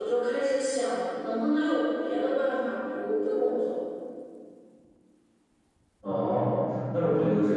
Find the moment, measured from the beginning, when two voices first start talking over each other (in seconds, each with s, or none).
none